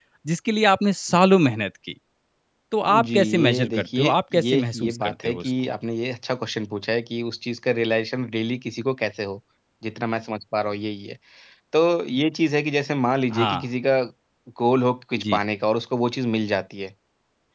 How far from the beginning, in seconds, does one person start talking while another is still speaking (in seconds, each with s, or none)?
2.9 s